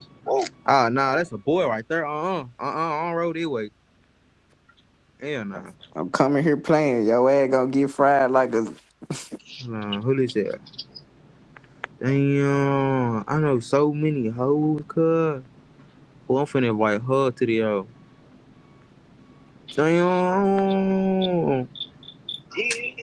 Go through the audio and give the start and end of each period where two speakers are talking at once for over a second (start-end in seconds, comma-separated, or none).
none